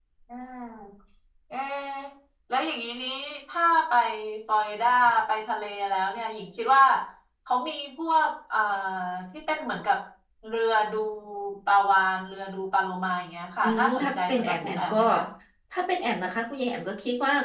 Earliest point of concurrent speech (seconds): 13.6 s

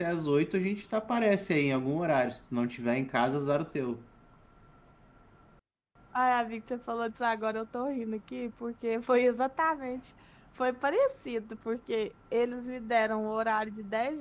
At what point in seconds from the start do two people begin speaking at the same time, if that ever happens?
none

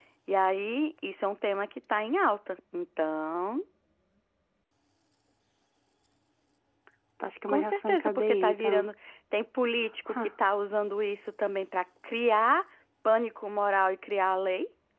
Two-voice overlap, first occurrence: 7.5 s

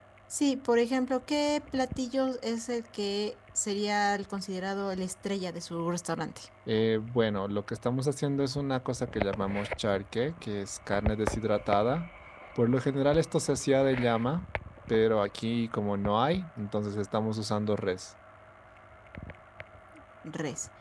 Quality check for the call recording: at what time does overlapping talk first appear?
none

